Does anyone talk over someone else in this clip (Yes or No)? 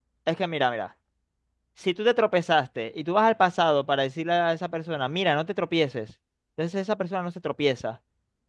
No